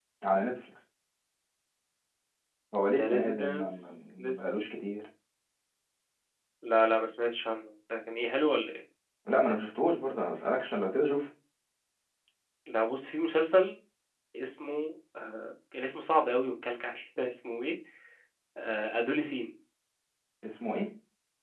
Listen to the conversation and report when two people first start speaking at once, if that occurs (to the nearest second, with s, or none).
3 s